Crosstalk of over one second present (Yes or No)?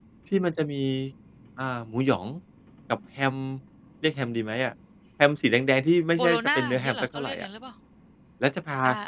Yes